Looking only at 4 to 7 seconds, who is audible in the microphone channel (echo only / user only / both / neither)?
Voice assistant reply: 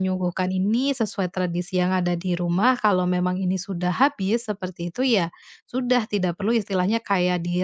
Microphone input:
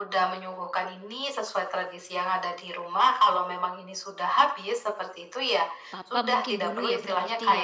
both